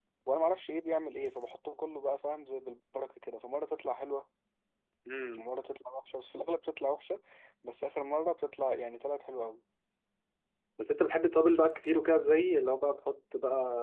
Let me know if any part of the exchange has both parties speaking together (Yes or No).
No